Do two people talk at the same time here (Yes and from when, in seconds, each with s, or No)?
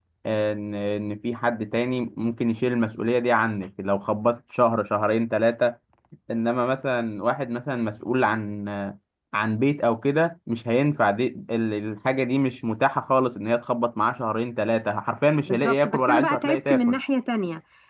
Yes, from 15.5 s